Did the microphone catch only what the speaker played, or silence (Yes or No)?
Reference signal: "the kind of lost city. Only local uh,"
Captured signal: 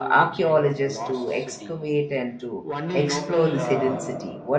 No